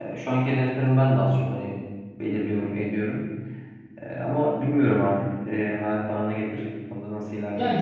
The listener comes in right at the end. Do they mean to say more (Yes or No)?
Yes